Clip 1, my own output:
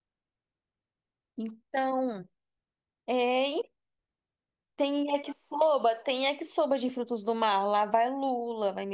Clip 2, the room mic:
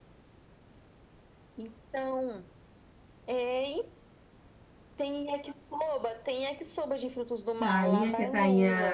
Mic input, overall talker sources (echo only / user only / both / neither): both